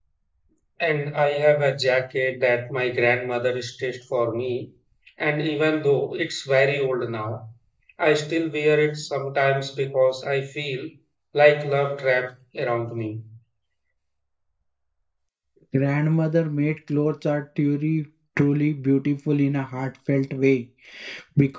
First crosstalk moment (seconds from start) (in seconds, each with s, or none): none